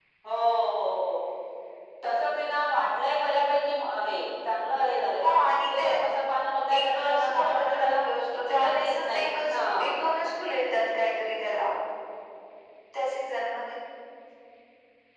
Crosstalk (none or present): present